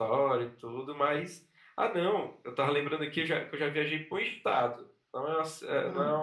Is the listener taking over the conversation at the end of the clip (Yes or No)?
No